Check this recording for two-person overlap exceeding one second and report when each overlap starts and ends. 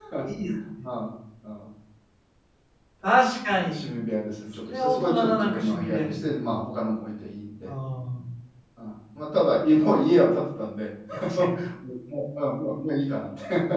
4.6-6.5

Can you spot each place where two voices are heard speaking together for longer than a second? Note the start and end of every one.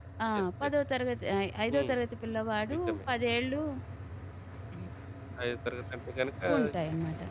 none

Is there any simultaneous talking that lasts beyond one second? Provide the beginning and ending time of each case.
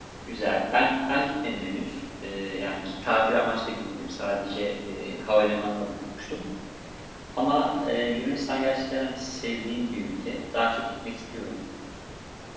none

